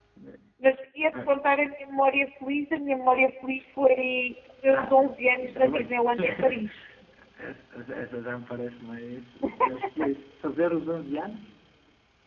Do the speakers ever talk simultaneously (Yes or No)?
Yes